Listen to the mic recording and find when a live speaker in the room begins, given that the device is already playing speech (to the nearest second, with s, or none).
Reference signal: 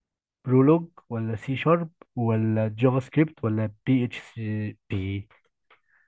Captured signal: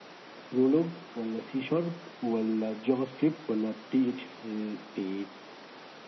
none